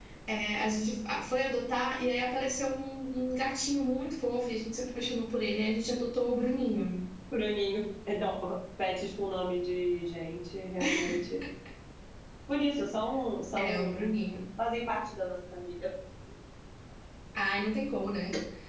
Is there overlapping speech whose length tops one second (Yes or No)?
No